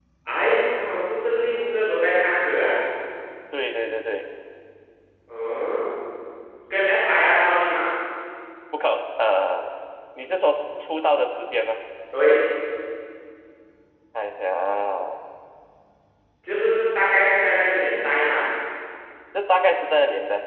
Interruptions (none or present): none